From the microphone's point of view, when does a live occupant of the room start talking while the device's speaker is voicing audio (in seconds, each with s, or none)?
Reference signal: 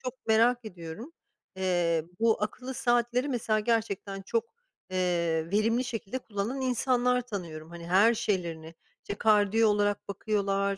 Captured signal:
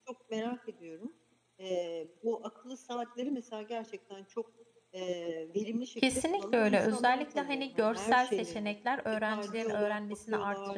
6.0 s